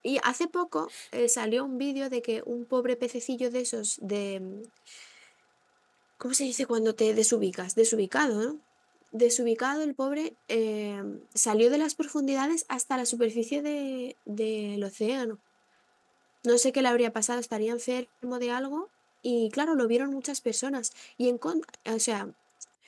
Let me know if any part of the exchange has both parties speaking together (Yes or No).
No